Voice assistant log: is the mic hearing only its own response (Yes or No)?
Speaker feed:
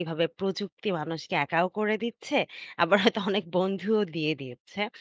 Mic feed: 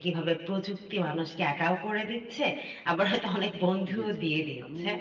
No